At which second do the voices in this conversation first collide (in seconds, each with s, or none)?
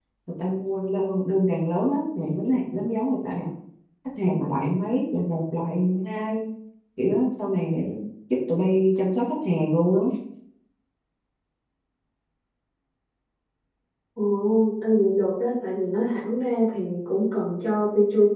none